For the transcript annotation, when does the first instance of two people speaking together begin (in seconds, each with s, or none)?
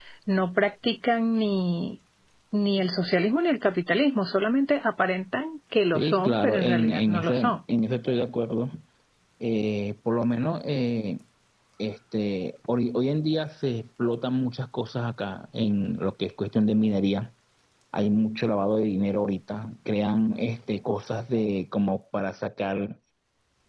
5.9 s